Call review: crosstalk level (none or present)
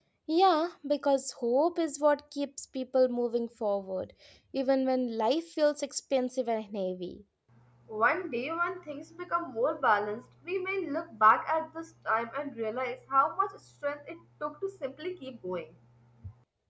none